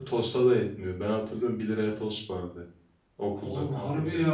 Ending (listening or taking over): taking over